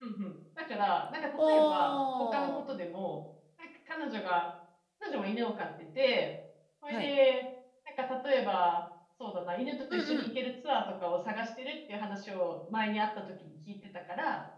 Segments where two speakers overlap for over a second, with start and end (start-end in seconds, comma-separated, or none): 1.4-2.7